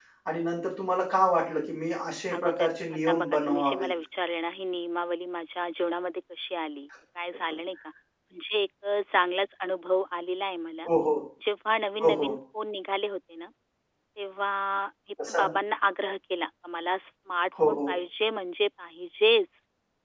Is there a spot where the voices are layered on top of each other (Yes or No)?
Yes